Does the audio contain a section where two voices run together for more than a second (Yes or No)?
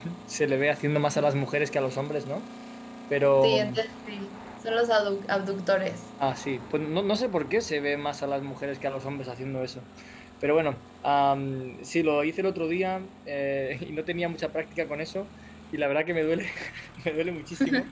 No